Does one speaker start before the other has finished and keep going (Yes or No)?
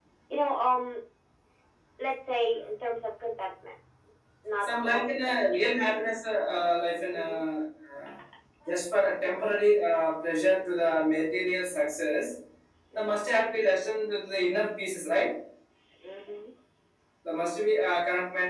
Yes